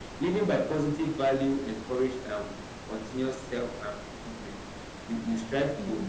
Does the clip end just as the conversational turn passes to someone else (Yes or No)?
No